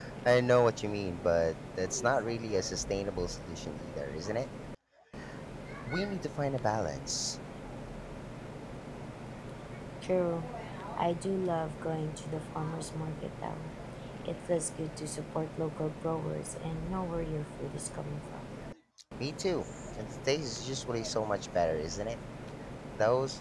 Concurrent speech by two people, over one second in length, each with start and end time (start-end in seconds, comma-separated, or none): none